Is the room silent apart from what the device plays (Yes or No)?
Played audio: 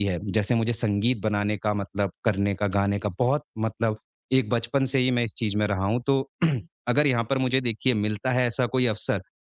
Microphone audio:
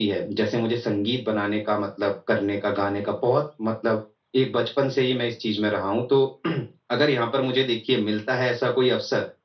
Yes